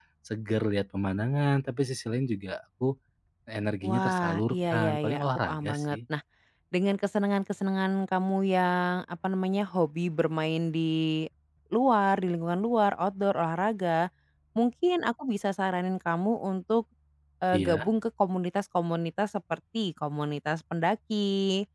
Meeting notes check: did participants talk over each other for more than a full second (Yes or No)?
Yes